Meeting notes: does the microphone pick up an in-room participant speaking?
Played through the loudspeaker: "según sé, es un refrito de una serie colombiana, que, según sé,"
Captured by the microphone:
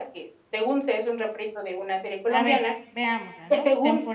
Yes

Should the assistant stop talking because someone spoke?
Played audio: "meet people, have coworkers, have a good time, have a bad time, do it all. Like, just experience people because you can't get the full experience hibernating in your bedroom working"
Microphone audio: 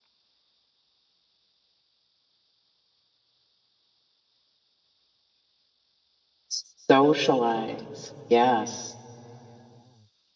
Yes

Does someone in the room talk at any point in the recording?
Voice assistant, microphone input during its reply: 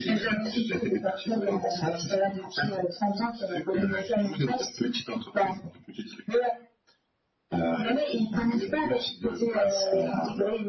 No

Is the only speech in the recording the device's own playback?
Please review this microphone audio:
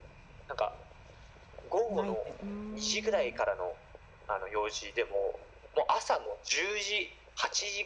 No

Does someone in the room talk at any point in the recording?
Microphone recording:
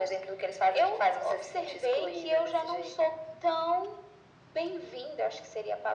No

